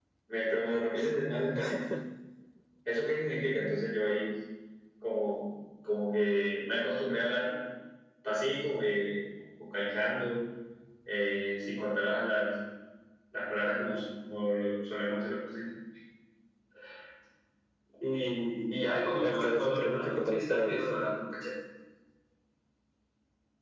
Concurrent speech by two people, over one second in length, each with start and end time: 19.2-20.8

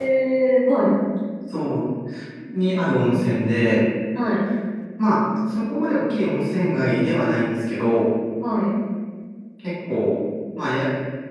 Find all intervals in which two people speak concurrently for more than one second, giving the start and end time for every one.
none

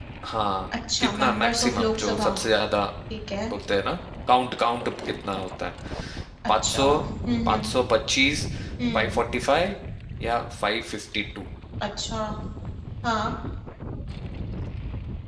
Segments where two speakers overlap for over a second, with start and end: 1.0-2.3

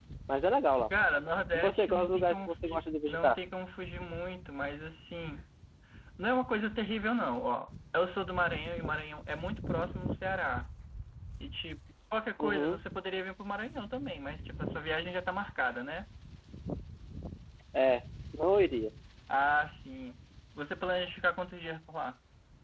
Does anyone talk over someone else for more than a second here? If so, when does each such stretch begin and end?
1.5-3.4

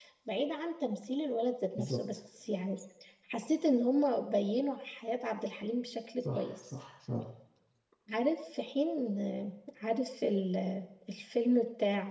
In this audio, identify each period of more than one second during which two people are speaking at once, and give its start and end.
none

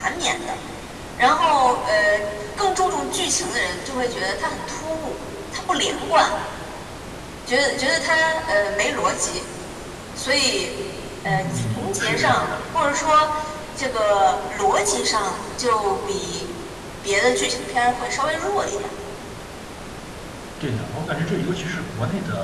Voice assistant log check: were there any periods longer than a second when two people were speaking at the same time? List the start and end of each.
11.2-12.5

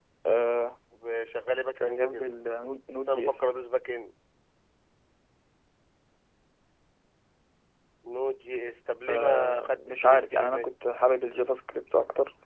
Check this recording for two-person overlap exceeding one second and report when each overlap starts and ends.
9.1-10.7

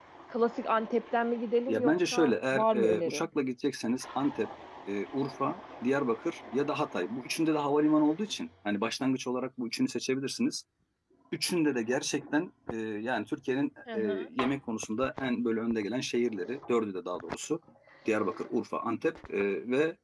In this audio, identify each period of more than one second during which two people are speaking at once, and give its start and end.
1.7-3.3

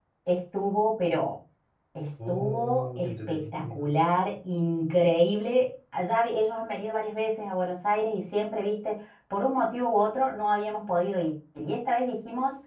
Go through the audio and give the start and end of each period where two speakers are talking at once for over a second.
2.3-3.8

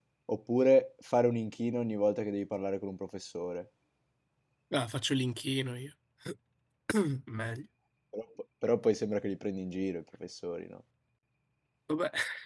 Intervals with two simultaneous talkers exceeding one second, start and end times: none

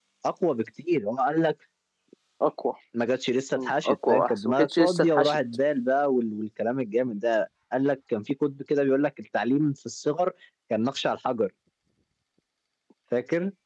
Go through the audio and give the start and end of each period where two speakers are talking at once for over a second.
3.5-5.4

